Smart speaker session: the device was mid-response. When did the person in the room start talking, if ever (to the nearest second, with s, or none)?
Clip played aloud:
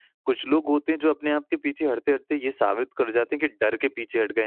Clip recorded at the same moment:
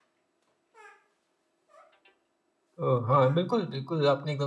3 s